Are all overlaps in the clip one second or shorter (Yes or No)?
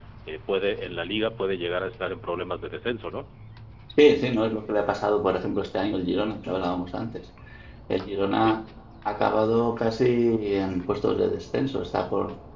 Yes